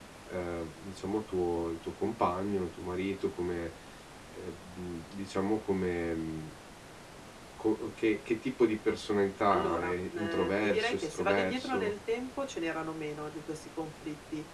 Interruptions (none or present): present